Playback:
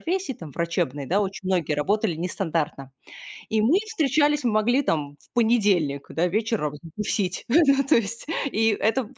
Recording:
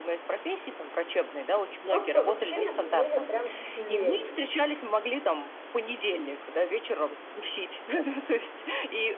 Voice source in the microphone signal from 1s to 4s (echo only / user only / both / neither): both